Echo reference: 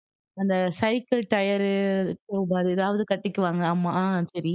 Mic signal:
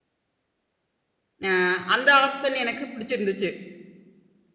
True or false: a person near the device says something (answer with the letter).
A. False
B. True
B